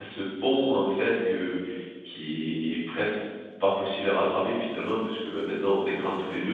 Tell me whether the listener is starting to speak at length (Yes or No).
No